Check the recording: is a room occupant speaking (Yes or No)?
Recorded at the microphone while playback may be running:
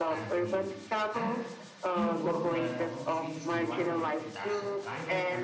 Yes